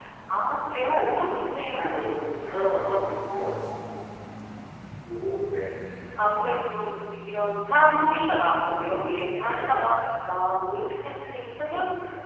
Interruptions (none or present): present